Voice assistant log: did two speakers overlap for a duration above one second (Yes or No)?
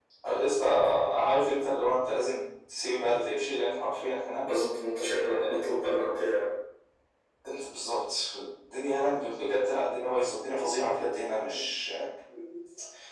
No